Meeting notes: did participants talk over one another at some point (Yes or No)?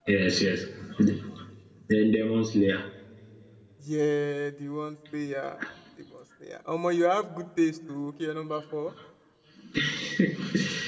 No